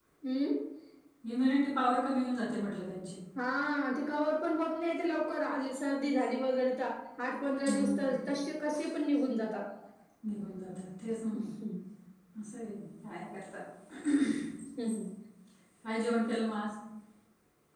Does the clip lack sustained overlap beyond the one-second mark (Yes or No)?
Yes